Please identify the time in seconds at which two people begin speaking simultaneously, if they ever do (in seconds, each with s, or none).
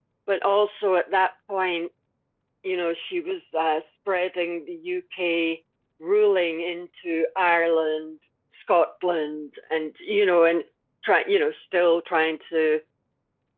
none